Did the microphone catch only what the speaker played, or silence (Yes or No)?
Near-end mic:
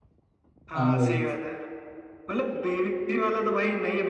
No